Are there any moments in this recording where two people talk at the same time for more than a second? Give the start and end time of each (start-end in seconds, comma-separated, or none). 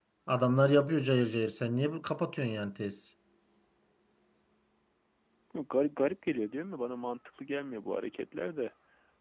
none